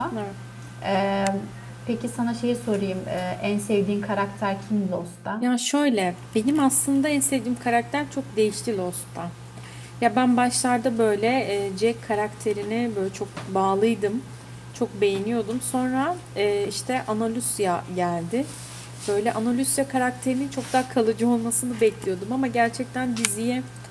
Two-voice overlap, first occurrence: none

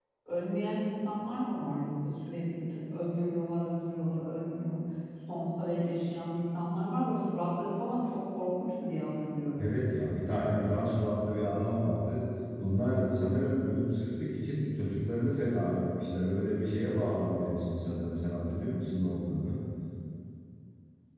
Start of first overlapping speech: none

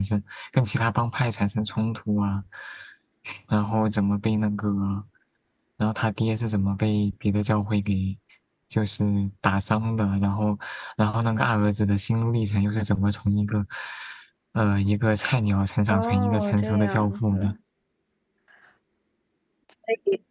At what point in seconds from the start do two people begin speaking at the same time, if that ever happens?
15.9 s

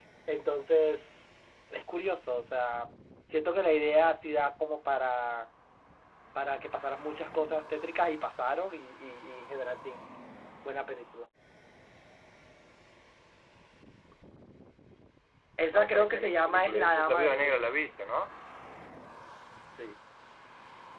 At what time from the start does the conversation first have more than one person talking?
15.7 s

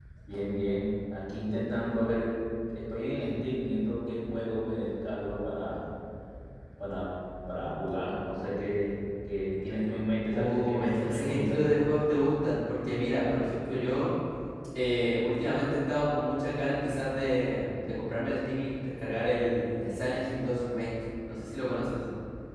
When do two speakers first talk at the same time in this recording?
10.3 s

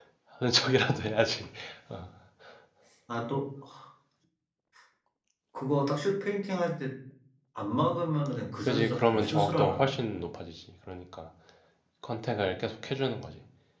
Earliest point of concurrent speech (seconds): 8.6 s

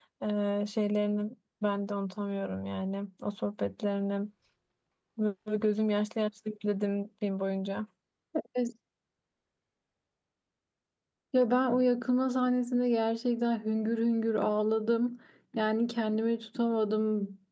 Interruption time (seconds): none

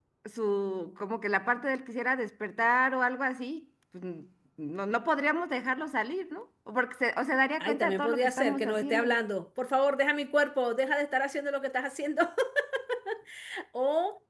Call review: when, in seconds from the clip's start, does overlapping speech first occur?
7.6 s

